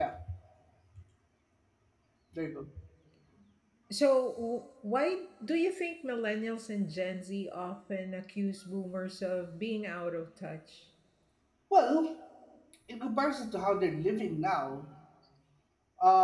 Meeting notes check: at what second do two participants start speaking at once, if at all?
none

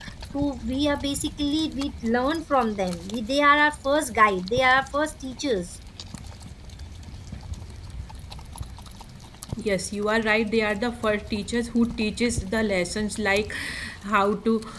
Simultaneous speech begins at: none

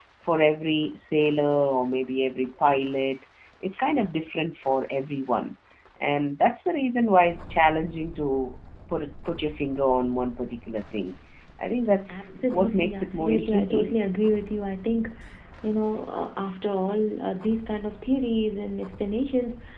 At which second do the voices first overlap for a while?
12.1 s

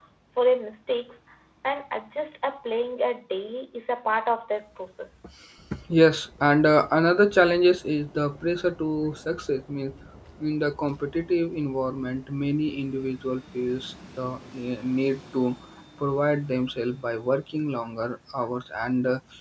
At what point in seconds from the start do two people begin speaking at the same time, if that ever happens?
none

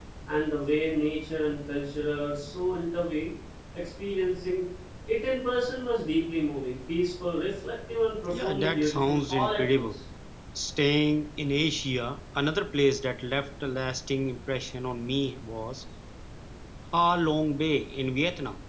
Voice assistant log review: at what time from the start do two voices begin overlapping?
8.3 s

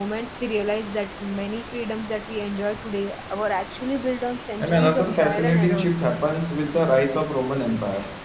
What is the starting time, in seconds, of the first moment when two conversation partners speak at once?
4.6 s

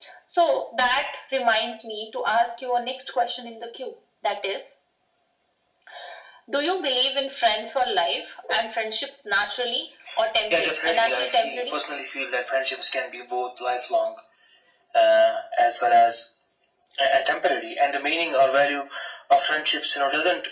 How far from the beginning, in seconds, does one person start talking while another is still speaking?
10.5 s

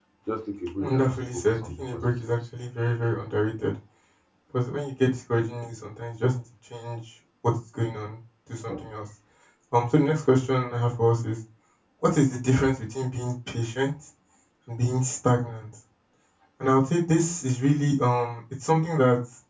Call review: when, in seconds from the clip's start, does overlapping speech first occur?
0.8 s

